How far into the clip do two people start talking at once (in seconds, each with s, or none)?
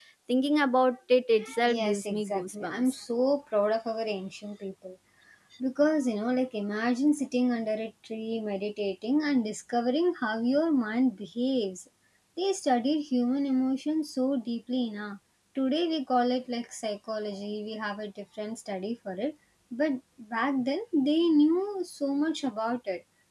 1.7 s